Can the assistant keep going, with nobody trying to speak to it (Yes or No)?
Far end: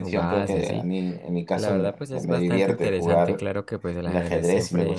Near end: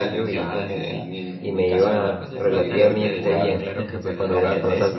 No